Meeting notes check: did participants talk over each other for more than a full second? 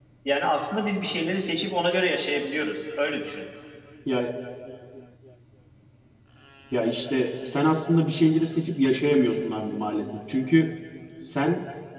No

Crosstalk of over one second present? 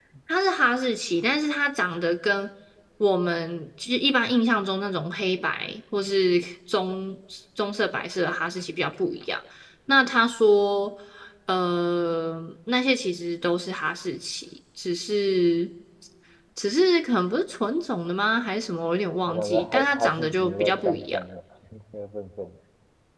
Yes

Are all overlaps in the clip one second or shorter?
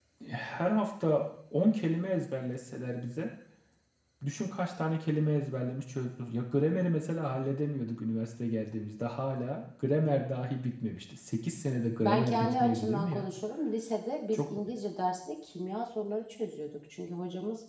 No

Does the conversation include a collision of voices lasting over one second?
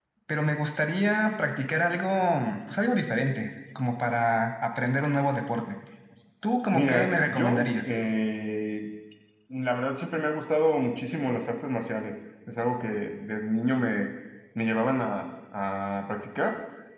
Yes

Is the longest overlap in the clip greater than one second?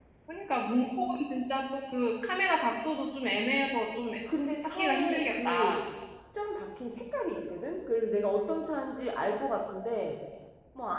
Yes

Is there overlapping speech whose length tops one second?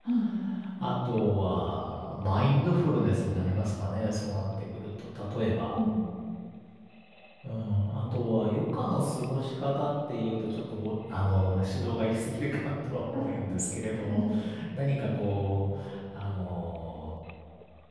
No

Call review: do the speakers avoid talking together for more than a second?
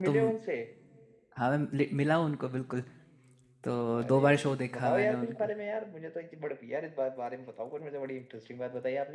No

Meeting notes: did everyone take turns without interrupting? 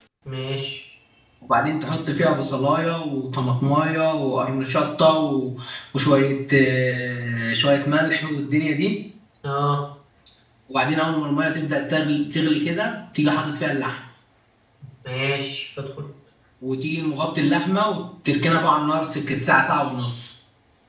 Yes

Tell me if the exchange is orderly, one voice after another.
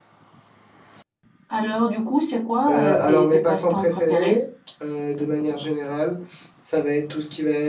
No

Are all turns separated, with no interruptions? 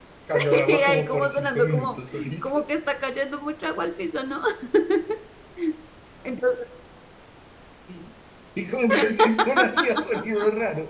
No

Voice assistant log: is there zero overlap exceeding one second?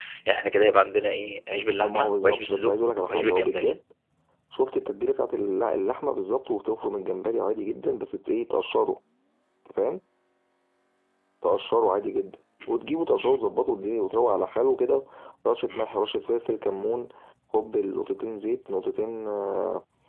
No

